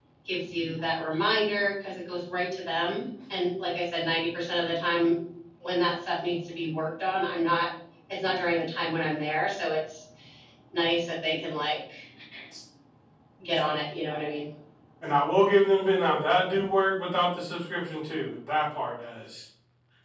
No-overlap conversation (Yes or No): Yes